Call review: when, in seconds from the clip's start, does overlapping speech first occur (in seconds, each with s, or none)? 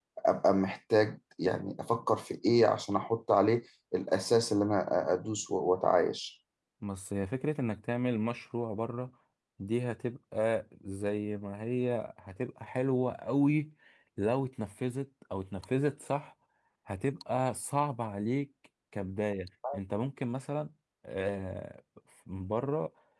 none